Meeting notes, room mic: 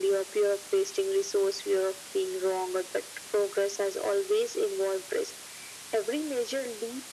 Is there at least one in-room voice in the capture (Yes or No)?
No